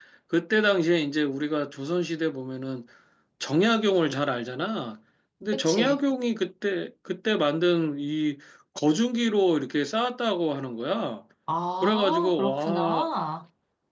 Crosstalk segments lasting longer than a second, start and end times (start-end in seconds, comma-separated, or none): 11.8-13.1